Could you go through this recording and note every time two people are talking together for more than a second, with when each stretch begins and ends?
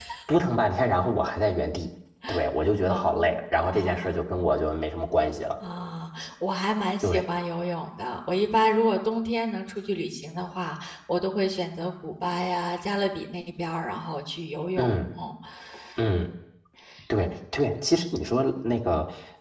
2.9-4.2

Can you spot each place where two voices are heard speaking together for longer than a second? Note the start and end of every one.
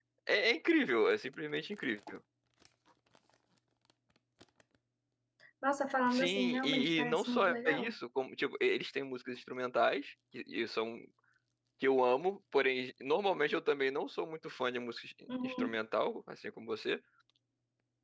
6.1-7.9

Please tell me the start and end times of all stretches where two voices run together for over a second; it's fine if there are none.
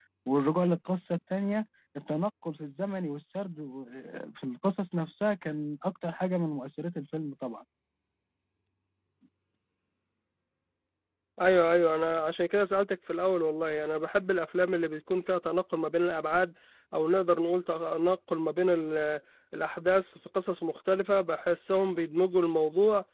none

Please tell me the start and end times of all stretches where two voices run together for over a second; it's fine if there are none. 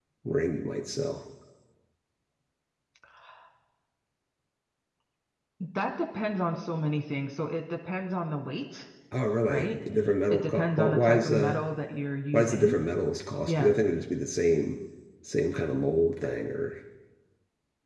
10.3-11.6

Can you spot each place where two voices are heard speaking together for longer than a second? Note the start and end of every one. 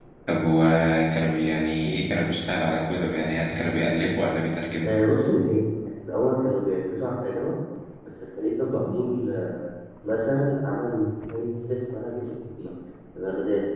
none

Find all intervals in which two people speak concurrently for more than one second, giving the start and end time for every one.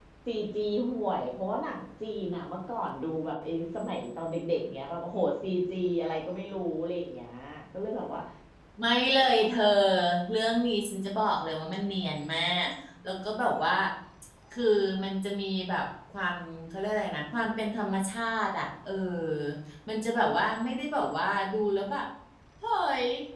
none

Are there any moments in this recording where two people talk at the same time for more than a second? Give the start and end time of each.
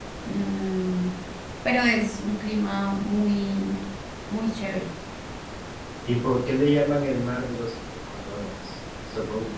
none

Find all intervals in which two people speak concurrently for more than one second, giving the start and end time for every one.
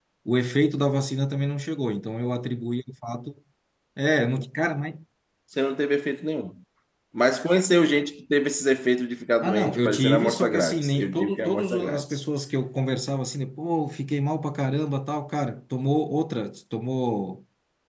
9.4-12.2

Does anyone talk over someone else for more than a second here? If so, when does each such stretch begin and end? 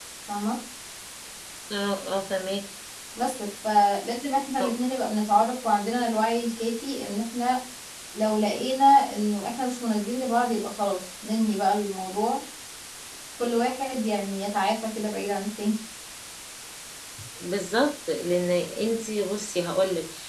none

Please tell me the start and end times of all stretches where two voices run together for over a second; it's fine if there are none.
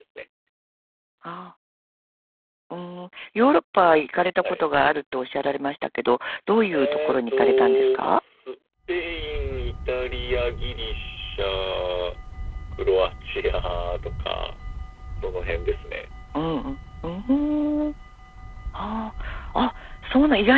6.7-8.2

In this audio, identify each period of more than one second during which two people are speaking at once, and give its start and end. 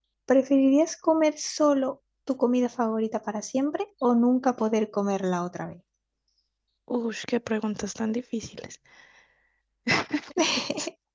none

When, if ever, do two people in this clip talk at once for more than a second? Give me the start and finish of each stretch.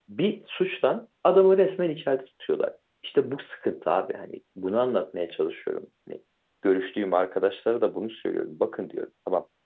none

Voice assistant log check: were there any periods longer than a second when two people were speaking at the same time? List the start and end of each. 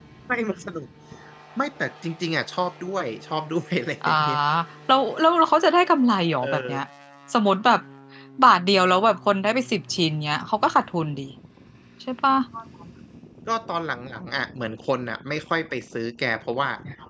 none

